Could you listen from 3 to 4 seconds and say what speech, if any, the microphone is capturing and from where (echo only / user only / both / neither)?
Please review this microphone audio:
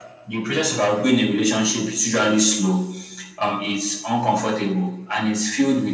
echo only